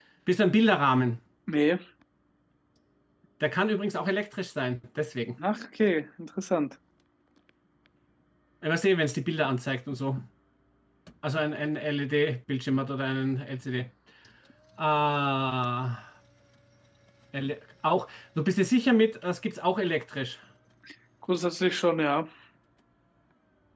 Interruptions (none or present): none